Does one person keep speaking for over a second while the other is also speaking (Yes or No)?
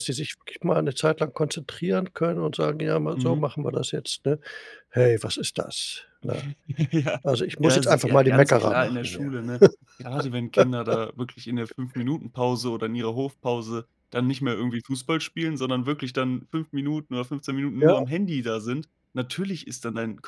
Yes